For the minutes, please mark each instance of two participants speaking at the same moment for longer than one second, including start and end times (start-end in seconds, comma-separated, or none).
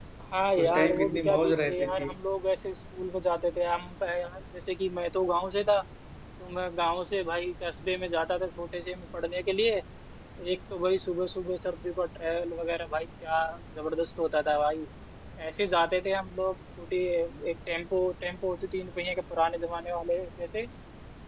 0.6-2.1